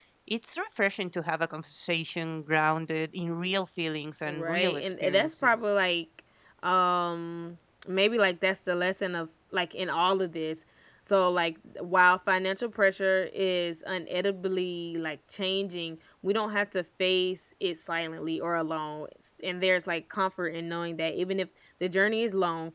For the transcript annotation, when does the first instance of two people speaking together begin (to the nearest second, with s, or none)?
4 s